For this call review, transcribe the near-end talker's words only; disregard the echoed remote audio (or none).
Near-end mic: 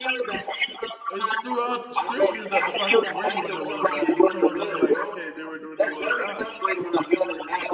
It's throughout Scripture that the prophets were doing the will of God, and some of them were like, okay, they were doing the will of God.